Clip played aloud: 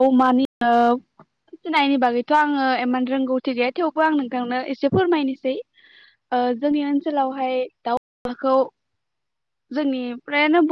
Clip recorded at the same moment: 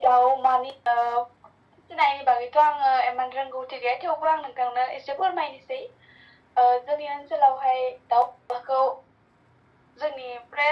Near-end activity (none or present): none